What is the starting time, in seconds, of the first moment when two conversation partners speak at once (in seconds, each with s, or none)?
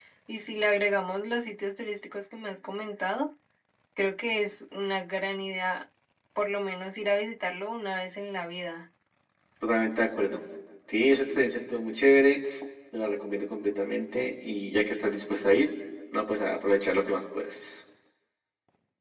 none